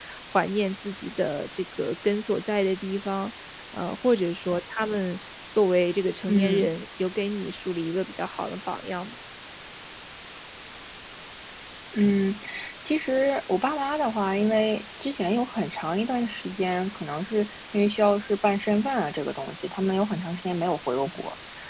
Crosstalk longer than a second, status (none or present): none